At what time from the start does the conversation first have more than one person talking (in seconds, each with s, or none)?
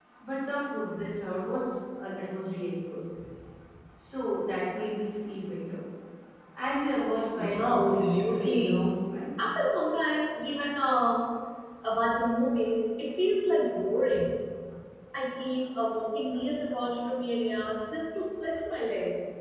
7.4 s